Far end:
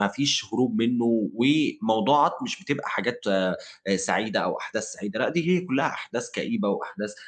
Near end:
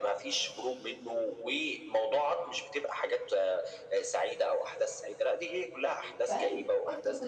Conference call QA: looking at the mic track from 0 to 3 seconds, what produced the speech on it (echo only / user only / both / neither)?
echo only